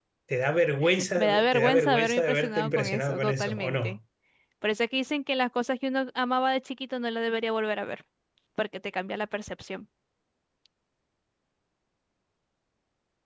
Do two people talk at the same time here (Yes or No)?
Yes